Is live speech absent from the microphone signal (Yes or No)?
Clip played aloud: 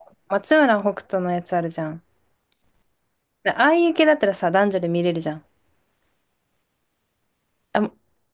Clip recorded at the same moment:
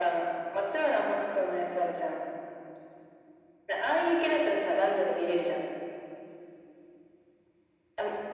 Yes